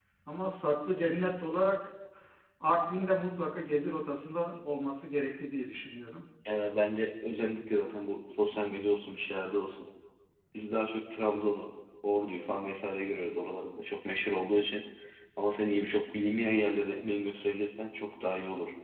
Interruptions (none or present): none